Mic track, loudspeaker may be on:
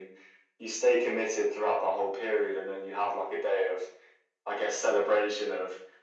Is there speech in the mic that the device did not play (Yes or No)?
No